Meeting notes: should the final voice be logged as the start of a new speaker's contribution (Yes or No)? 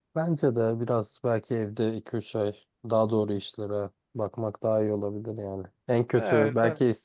No